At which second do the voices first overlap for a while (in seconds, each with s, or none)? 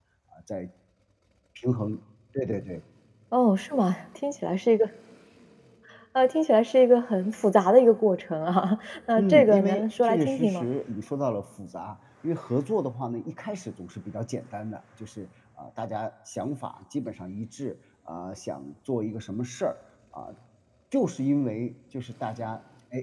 9.2 s